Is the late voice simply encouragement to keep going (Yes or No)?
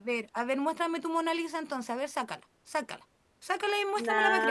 No